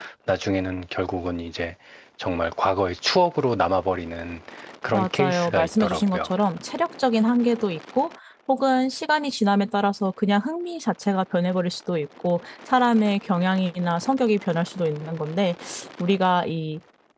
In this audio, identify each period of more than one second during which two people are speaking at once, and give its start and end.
4.9-6.3

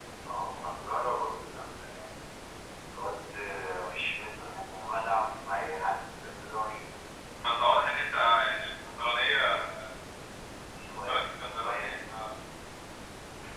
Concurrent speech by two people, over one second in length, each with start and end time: 10.8-12.1

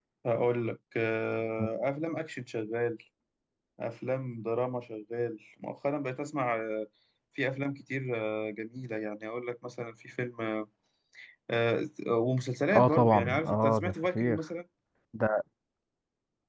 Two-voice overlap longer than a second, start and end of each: 12.8-14.4

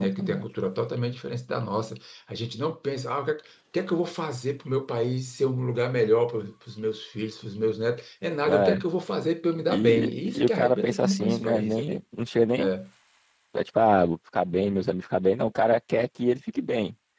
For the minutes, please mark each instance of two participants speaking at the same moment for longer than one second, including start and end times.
9.7-12.0

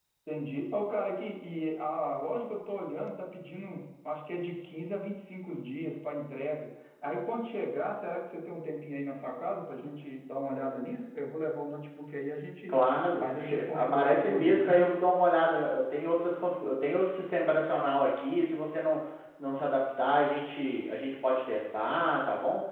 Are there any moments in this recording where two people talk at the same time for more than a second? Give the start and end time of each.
13.2-14.9

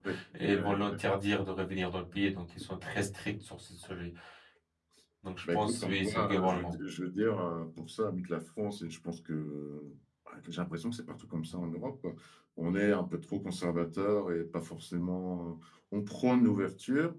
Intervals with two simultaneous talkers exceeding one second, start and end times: 5.5-6.7

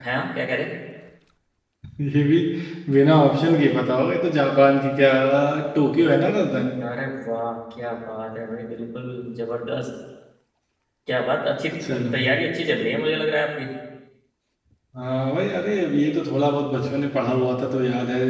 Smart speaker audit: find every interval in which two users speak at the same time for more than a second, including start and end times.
none

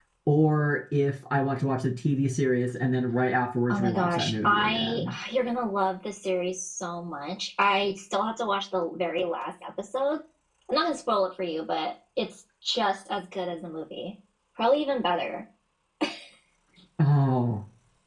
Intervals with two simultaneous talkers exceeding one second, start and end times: 3.7-5.1

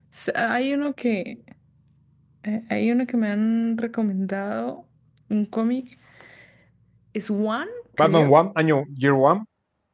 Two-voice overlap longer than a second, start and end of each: none

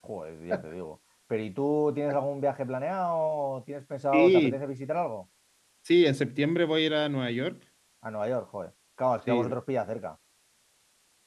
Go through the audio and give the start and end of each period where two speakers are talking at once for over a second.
none

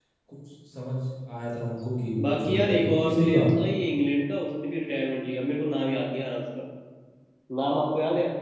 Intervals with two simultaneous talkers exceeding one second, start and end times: 2.2-3.6

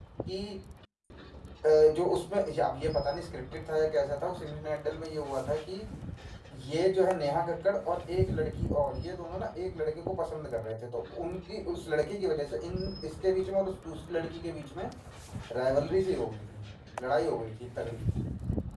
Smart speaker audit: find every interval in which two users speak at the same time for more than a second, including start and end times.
none

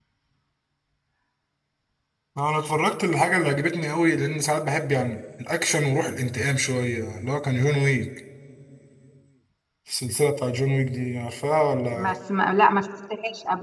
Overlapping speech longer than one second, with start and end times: none

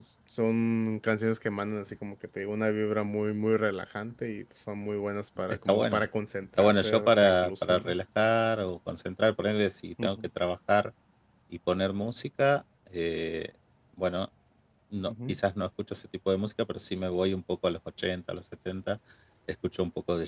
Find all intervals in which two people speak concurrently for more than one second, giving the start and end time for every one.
6.6-8.0

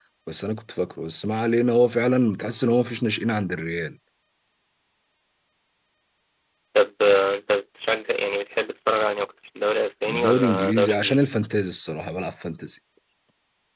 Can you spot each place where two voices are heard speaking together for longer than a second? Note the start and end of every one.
10.1-11.3

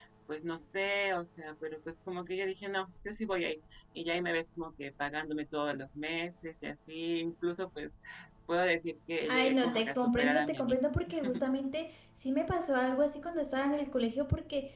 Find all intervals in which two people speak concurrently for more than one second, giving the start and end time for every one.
9.3-10.8

